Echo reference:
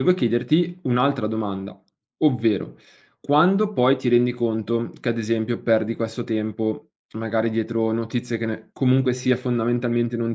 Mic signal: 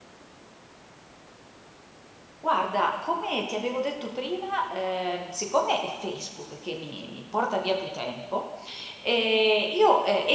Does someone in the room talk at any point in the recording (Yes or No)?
Yes